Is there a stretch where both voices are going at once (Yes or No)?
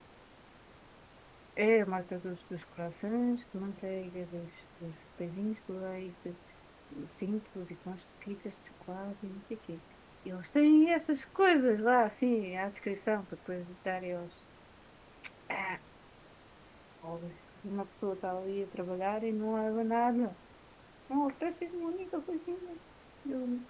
No